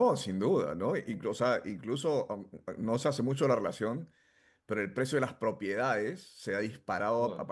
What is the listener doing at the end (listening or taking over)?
listening